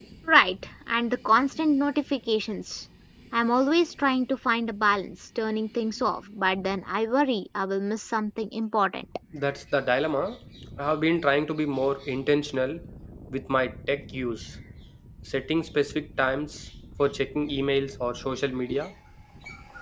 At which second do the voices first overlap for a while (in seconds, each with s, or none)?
none